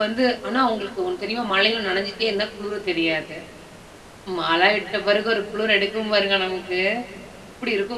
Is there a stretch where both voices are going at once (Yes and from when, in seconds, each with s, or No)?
No